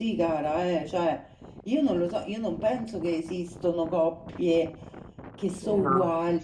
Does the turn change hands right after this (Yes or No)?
No